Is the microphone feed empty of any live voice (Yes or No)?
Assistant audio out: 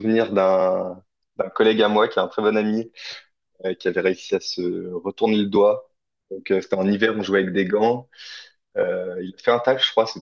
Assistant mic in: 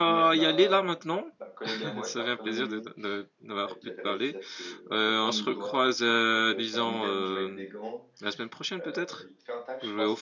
No